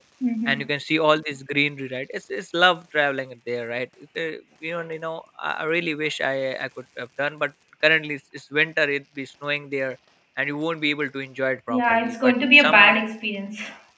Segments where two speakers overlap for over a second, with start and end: 11.7-13.0

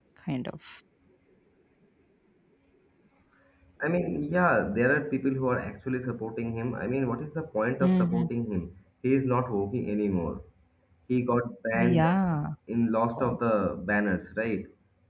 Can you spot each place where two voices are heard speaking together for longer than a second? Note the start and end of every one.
none

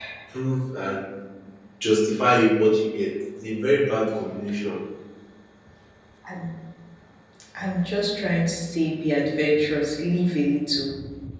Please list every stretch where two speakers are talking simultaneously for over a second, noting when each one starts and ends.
none

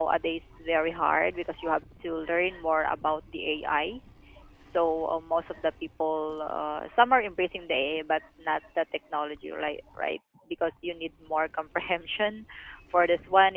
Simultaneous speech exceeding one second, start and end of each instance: none

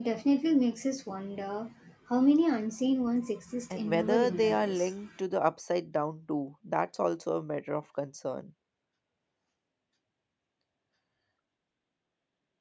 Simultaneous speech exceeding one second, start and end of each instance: 3.7-4.9

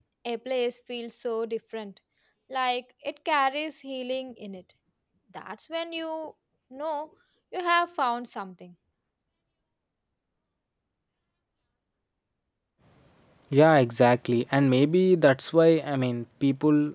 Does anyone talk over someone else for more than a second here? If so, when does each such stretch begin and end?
none

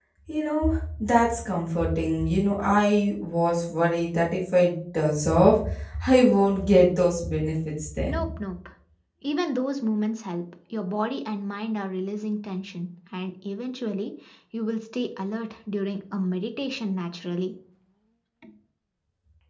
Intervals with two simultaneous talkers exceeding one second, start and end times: none

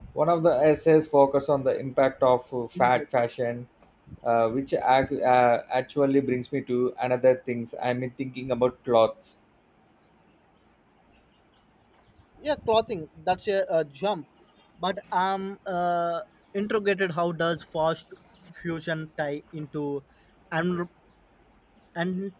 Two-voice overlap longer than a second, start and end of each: none

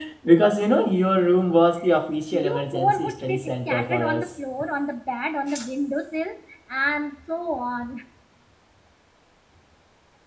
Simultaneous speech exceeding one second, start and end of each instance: 2.3-4.3

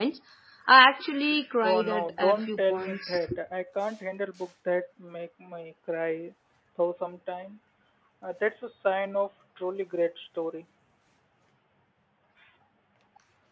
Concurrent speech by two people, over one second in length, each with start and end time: 1.6-3.3

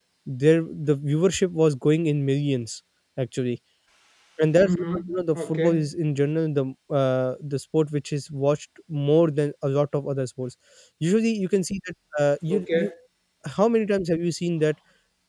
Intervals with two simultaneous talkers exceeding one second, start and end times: 4.6-5.9

